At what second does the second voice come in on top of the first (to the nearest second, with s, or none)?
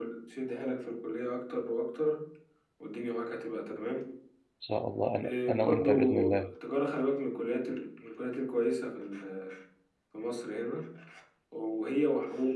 5 s